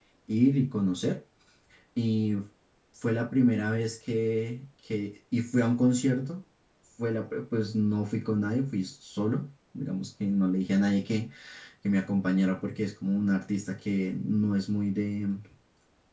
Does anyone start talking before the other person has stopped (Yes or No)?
No